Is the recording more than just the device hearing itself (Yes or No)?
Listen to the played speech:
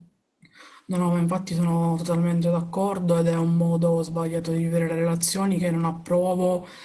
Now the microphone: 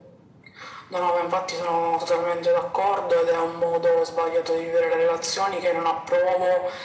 No